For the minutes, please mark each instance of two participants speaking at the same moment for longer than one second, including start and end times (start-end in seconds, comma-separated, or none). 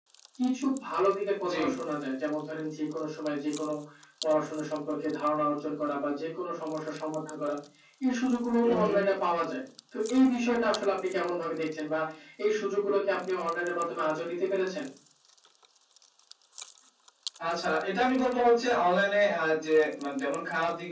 none